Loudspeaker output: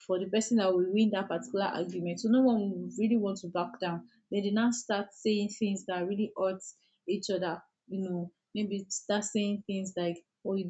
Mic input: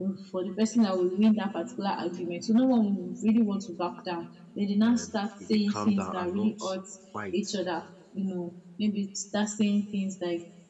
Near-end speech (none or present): present